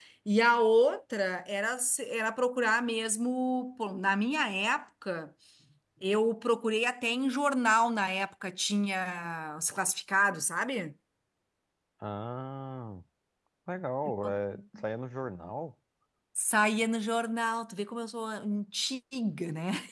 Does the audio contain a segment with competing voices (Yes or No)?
No